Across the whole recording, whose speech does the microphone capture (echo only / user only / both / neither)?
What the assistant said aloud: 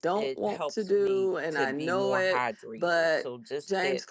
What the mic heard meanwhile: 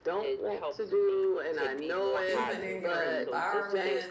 both